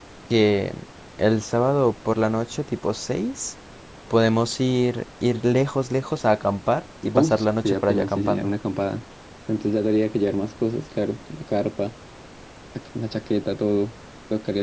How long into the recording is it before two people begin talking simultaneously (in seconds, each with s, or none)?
7.1 s